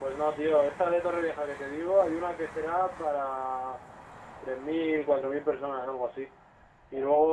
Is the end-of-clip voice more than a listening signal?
No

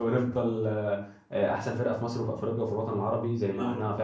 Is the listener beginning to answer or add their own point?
Yes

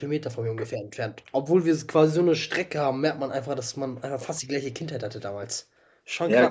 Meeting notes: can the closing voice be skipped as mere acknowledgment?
No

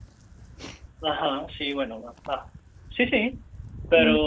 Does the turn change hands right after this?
Yes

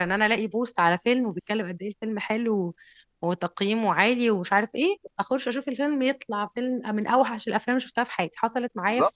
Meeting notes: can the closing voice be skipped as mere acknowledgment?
No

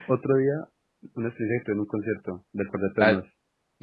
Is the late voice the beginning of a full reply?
Yes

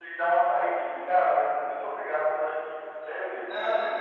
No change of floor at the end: No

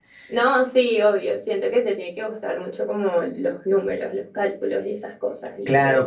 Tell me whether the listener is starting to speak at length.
Yes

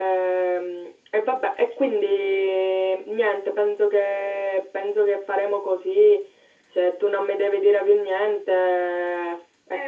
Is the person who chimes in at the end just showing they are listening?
No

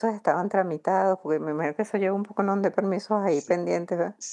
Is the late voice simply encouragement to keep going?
No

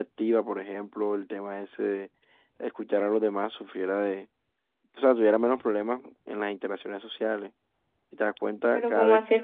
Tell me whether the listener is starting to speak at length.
Yes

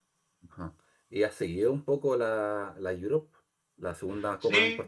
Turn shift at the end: Yes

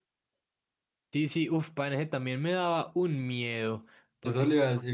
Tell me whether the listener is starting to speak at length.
Yes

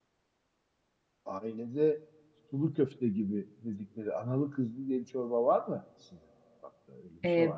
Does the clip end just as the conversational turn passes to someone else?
Yes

